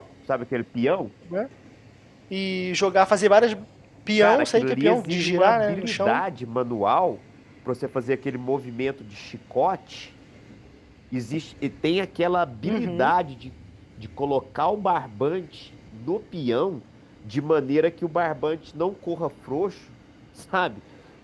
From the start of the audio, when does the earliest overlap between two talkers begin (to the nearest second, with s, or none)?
4 s